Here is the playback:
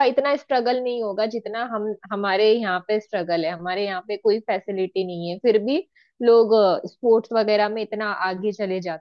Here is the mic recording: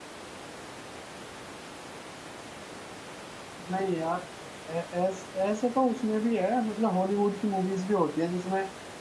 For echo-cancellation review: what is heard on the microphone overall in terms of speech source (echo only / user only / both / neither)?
user only